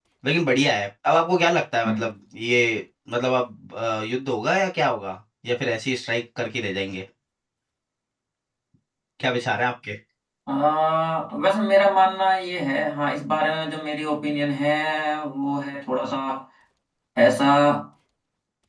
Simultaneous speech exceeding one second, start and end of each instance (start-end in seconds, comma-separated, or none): none